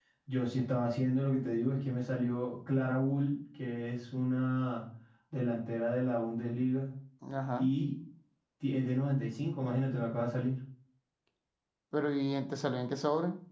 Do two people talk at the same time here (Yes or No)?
No